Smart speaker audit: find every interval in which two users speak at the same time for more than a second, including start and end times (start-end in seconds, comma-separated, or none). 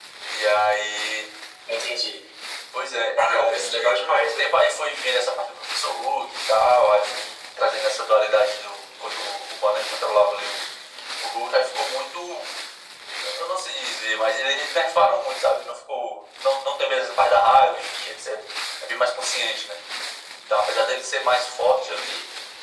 3.2-4.5